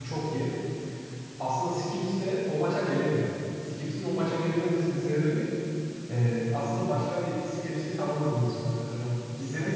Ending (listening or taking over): listening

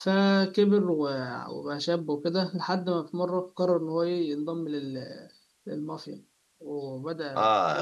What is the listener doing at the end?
taking over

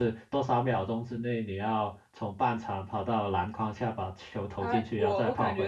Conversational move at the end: taking over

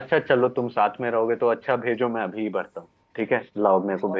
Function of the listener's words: taking over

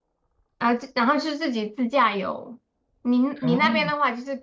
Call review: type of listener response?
listening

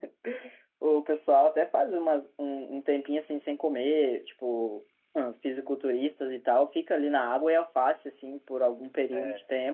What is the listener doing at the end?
listening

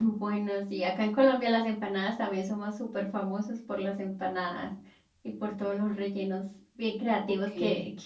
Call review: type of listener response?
listening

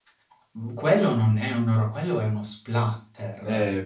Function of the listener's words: taking over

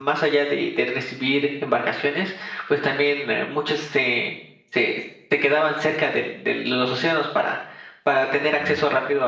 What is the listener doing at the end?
listening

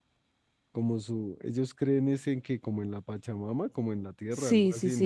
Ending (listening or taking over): taking over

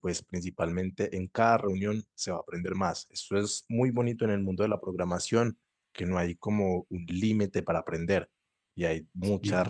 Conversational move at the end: listening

